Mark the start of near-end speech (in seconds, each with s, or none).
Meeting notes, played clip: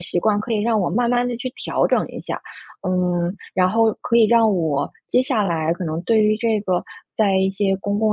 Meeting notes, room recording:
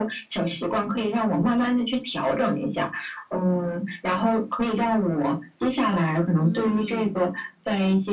6.4 s